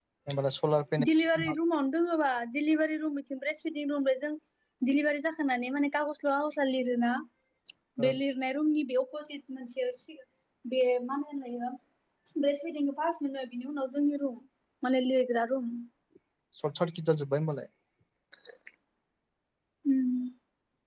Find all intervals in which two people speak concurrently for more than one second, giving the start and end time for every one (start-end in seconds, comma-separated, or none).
none